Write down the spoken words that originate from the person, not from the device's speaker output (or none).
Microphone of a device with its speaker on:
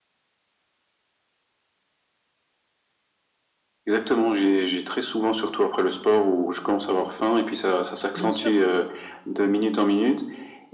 Bien sûr.